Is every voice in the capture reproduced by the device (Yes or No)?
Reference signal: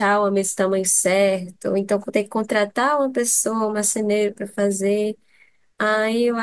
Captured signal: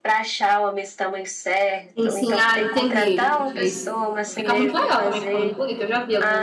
No